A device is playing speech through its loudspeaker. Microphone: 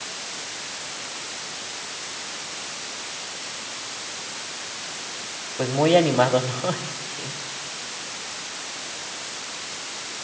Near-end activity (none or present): present